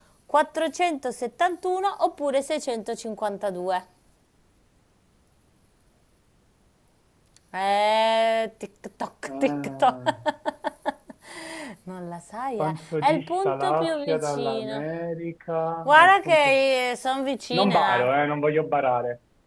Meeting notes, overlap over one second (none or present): present